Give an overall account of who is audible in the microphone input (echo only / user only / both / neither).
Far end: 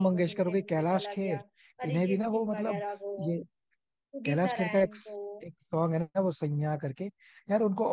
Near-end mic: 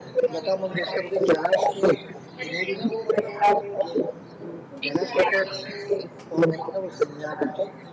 echo only